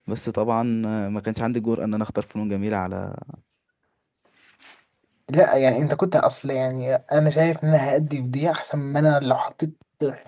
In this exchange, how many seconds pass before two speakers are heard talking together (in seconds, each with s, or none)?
none